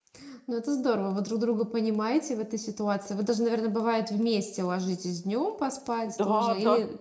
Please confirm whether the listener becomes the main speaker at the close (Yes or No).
Yes